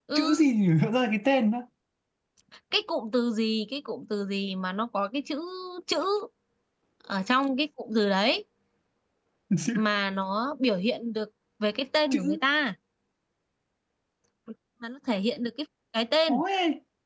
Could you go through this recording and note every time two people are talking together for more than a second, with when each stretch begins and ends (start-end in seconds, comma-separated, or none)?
none